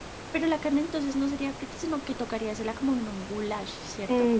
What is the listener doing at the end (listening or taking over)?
taking over